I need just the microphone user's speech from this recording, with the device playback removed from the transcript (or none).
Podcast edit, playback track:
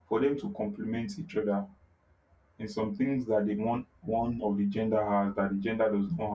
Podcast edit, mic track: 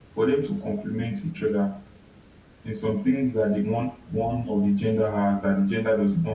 none